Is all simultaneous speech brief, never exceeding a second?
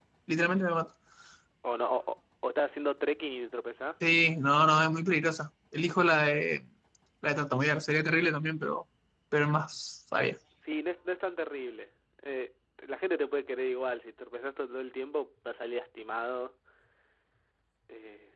Yes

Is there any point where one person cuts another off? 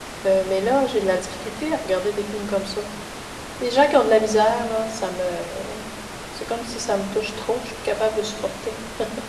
No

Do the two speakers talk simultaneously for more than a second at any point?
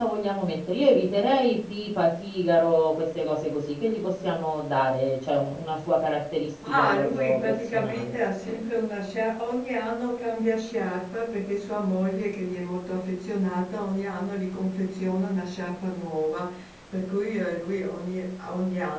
Yes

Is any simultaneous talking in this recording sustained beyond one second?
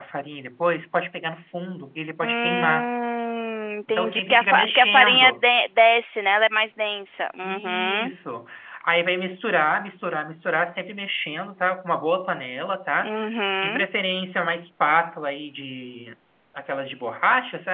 Yes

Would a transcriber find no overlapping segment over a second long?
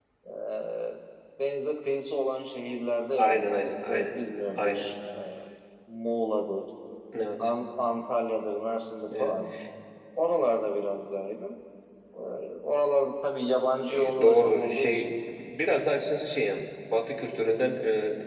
No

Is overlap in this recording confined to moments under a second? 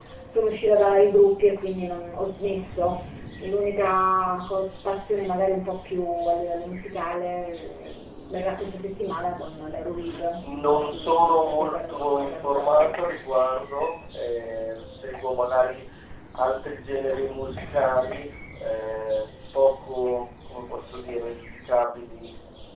No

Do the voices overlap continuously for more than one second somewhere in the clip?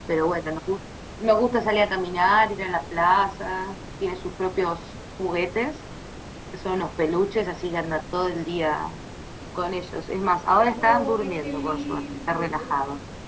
Yes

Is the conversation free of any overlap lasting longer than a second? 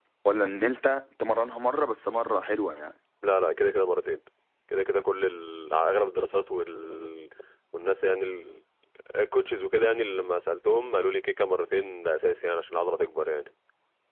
Yes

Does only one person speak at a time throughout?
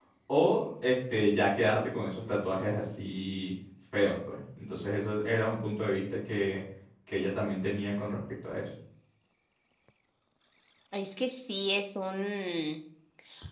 Yes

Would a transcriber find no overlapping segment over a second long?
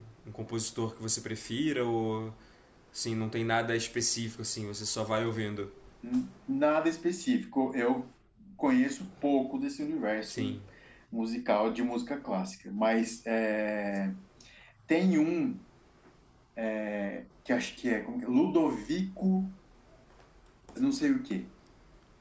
Yes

